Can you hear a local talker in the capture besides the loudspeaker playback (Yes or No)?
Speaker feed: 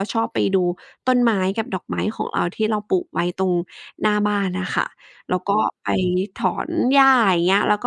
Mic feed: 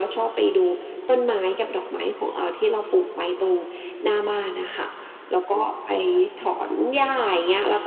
No